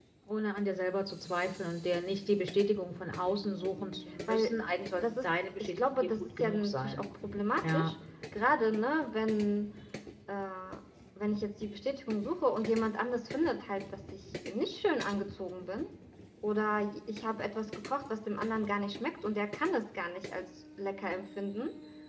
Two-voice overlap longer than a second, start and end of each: 5.0-7.0

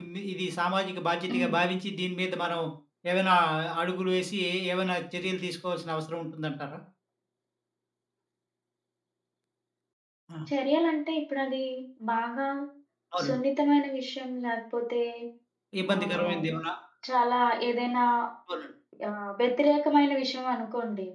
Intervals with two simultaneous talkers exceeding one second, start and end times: none

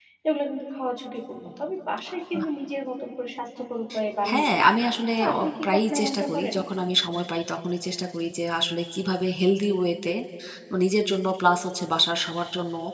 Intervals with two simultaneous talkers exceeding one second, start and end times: 5.2-6.6

